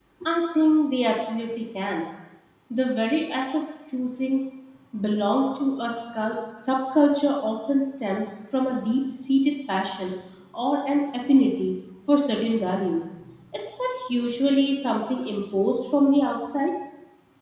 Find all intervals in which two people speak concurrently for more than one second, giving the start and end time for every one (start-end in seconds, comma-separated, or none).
none